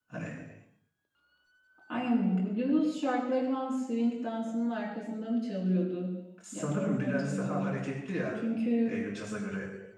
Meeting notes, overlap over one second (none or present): present